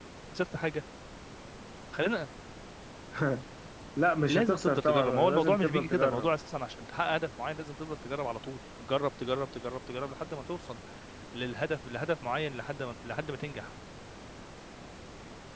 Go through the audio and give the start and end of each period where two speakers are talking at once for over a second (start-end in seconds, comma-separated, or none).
4.2-6.3